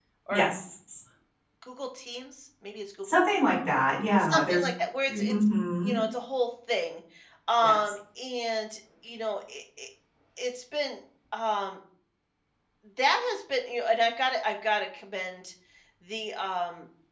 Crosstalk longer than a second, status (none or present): none